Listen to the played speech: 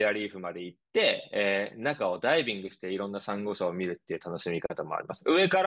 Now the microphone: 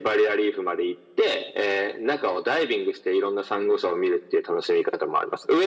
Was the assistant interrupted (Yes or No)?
No